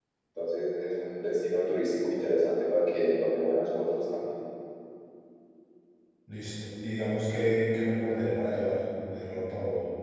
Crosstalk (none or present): none